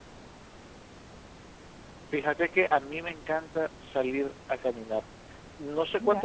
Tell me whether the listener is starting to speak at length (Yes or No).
No